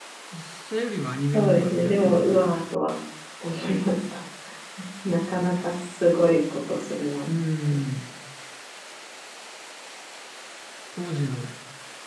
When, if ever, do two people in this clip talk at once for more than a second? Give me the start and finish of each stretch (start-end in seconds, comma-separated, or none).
1.3-2.6